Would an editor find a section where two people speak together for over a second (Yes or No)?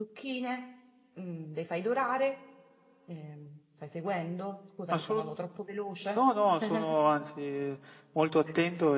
No